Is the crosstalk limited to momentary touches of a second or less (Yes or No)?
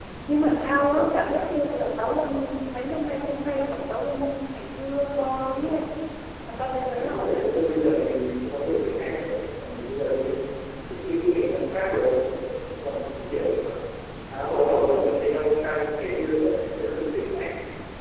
Yes